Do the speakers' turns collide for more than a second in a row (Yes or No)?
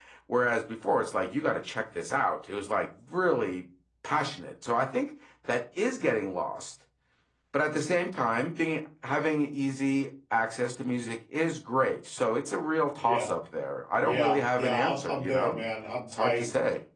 Yes